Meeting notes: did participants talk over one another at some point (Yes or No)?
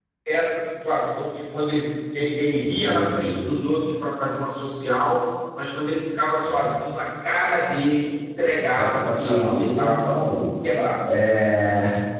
Yes